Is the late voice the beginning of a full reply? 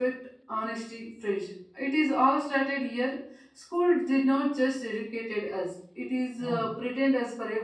No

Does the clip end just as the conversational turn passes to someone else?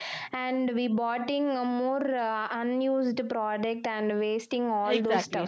Yes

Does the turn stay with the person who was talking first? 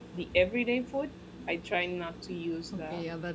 No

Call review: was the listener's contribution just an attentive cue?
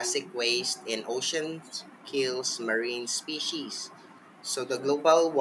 Yes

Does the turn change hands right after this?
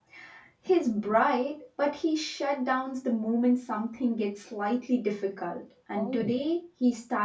No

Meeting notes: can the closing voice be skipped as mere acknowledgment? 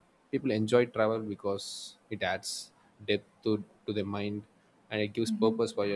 Yes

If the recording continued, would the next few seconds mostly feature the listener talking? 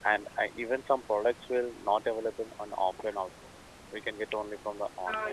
Yes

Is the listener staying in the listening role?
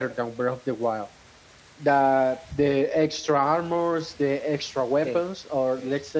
Yes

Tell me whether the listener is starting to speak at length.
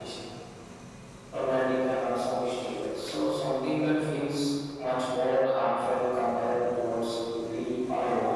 Yes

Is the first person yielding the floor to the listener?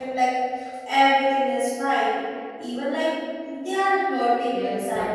Yes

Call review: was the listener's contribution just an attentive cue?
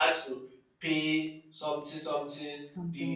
Yes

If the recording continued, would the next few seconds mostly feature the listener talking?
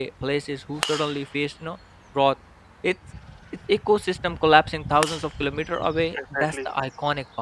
No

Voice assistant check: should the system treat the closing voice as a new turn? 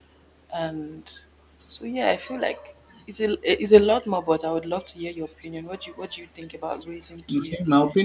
Yes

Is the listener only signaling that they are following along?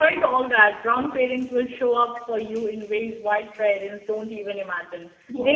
Yes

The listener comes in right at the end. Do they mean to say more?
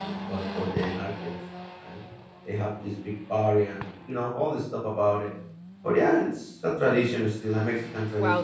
Yes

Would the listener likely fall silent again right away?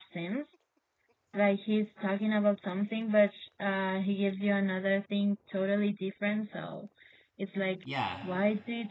Yes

